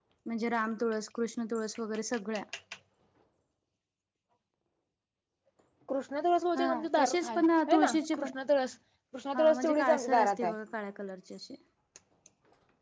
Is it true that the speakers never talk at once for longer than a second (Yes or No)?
No